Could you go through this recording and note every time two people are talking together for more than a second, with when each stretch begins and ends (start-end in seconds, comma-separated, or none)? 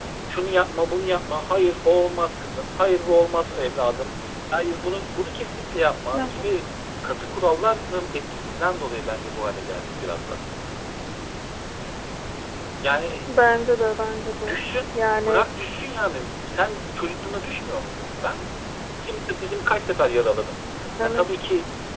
none